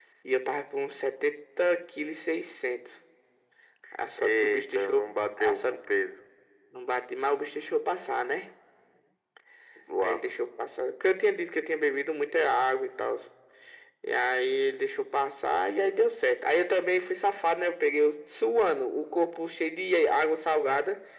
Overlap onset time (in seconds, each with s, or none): 4.2 s